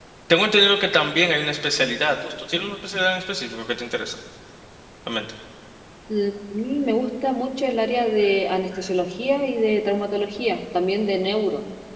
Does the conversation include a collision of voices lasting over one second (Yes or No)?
No